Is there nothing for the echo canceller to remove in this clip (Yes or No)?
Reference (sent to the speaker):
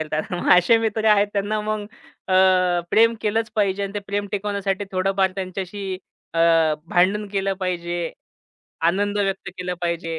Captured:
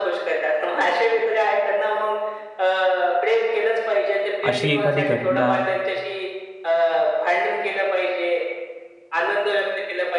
No